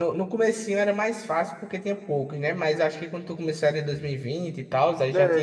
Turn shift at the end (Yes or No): Yes